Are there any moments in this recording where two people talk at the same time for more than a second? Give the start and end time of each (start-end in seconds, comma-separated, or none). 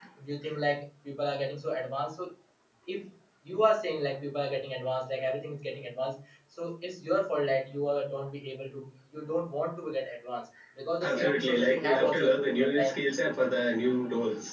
11.1-13.0